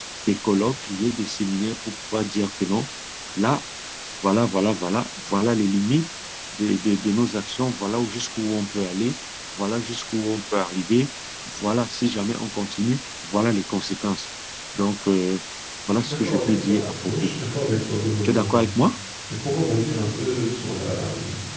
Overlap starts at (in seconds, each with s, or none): 16.0 s